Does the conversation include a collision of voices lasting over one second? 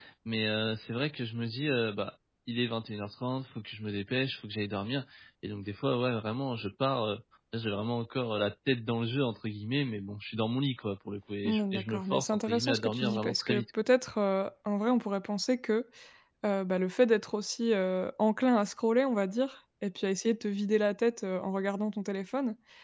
Yes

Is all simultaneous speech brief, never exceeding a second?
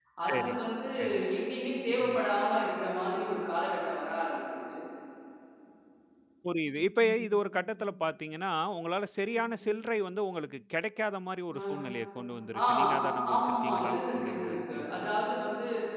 No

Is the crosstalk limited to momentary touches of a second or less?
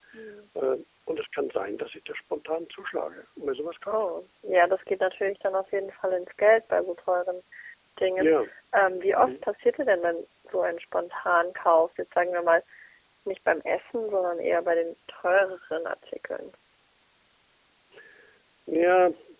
Yes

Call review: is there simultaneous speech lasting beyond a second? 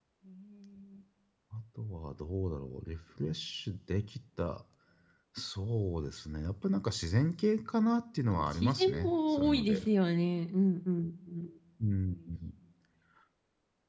Yes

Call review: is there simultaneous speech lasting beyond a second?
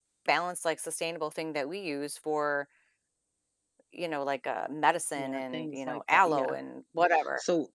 Yes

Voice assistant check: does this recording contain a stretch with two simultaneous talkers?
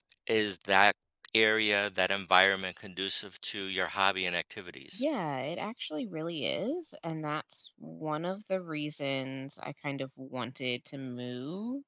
No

